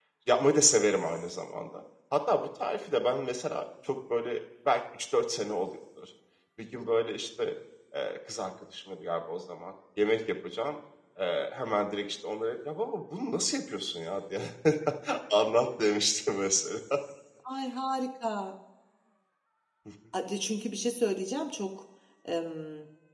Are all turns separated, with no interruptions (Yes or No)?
Yes